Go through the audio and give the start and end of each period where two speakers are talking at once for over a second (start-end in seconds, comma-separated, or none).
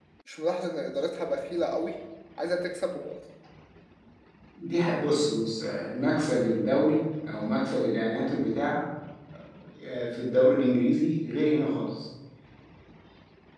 none